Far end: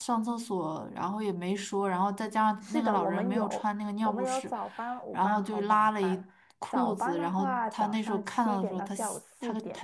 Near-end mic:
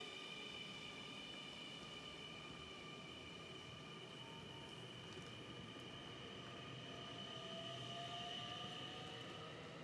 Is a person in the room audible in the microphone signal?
No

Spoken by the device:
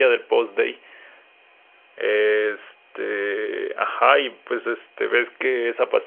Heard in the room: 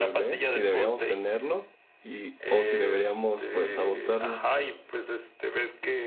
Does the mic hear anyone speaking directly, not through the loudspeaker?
Yes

